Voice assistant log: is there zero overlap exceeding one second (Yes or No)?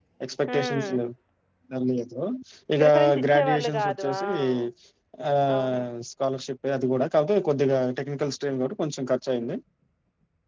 No